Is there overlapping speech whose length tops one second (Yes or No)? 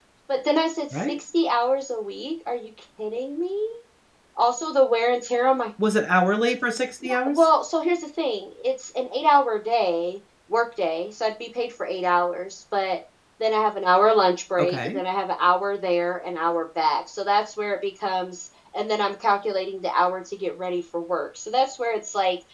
No